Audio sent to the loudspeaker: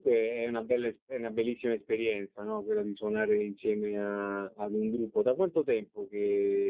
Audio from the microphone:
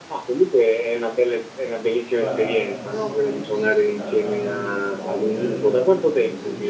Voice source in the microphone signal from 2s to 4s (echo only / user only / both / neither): both